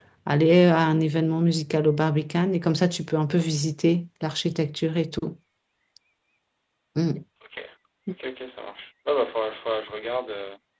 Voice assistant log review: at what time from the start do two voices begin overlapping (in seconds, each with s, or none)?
none